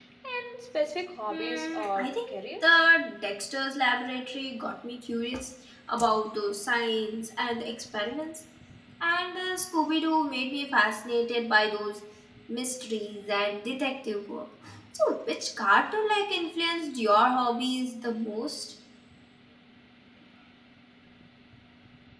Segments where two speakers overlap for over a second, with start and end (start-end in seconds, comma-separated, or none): 1.3-2.8